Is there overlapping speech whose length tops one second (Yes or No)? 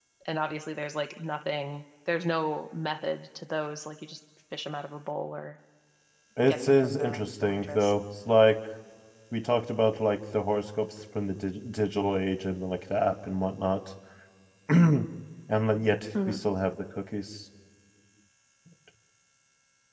Yes